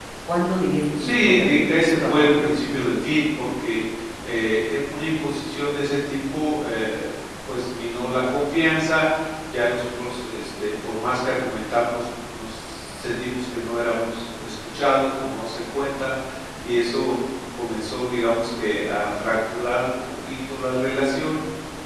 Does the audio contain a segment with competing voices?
Yes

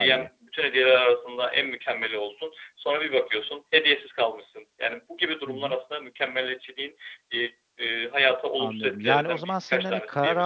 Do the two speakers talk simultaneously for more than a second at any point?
Yes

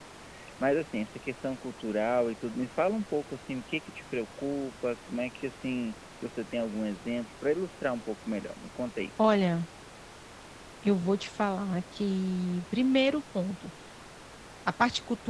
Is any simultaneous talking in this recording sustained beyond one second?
No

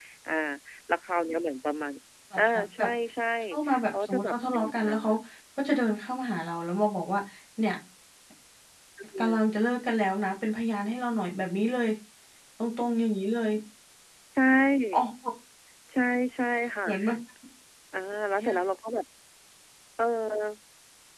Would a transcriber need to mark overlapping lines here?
Yes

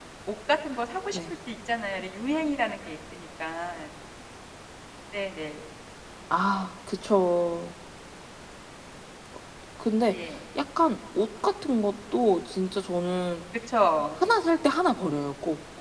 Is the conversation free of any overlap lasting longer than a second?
Yes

